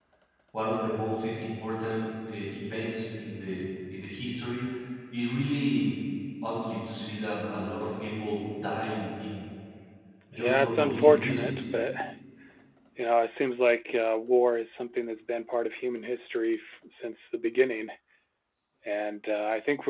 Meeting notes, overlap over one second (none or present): present